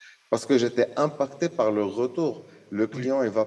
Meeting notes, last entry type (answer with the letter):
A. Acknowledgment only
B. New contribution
A